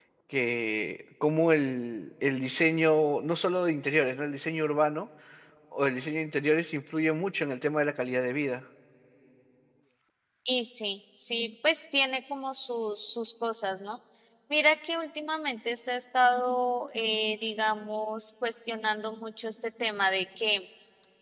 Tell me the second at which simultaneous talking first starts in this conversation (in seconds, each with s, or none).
none